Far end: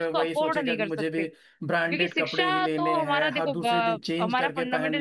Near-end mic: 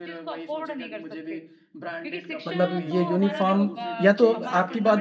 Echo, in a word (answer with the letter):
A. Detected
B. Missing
A